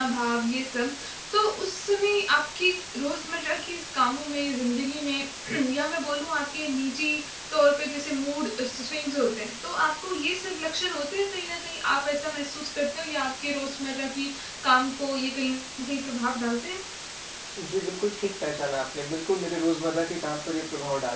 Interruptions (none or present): none